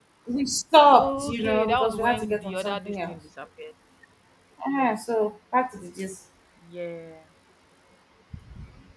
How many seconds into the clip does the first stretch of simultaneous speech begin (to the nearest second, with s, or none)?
1 s